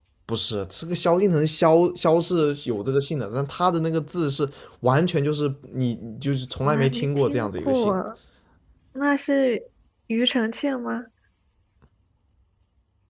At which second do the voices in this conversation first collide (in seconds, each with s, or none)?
6.6 s